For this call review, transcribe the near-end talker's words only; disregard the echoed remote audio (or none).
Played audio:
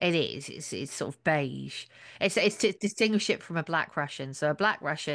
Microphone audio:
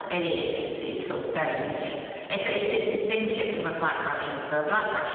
none